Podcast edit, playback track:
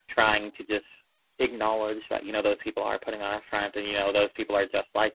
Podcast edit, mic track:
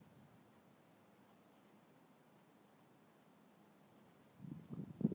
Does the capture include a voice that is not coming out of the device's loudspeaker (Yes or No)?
No